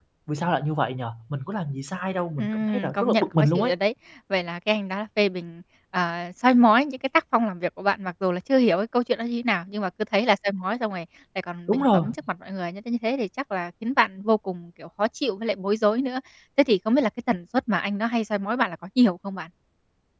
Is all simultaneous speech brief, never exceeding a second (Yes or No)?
No